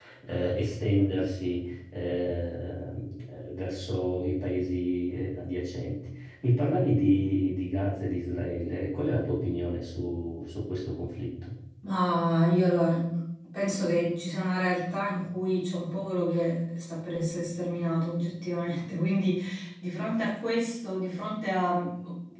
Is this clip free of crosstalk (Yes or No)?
Yes